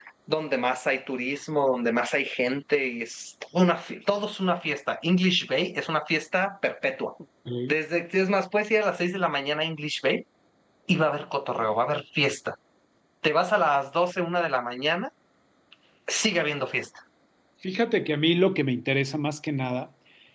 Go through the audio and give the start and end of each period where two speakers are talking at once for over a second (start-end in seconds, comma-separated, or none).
none